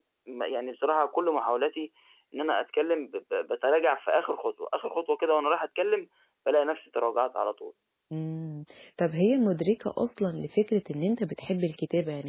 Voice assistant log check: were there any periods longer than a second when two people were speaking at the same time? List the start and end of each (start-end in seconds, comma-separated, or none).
none